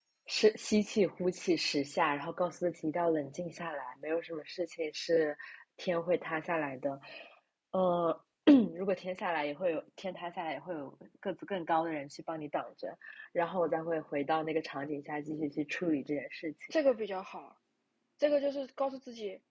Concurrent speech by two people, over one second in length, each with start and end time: none

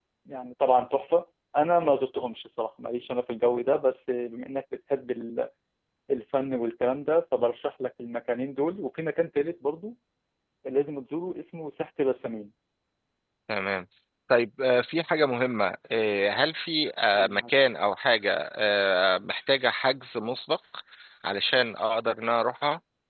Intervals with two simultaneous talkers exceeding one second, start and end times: none

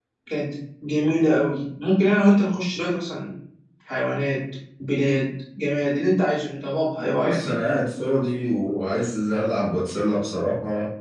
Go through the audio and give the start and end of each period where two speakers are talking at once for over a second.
none

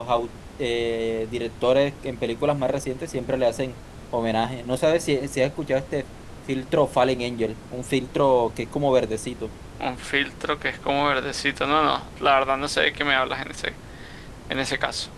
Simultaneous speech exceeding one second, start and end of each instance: none

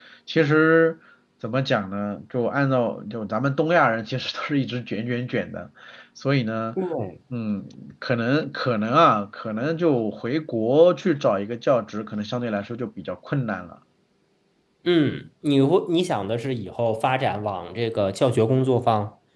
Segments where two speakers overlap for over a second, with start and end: none

